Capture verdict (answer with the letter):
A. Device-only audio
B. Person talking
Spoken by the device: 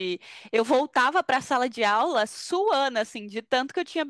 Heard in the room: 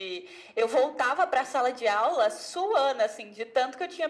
A